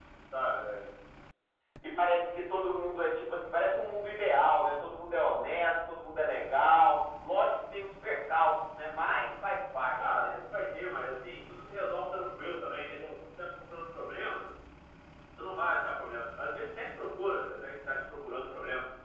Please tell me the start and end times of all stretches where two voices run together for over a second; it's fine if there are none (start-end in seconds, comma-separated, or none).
none